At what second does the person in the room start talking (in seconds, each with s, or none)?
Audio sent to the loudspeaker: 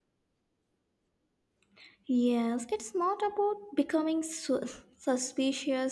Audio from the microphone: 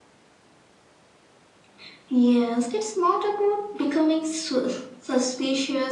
none